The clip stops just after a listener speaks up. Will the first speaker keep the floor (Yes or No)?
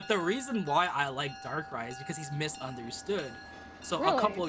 Yes